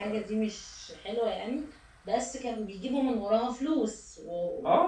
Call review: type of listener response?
taking over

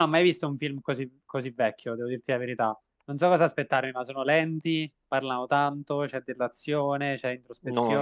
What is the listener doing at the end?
taking over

